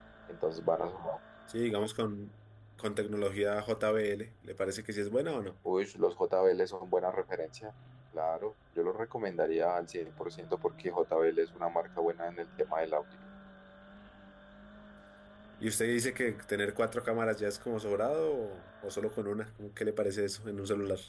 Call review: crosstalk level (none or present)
none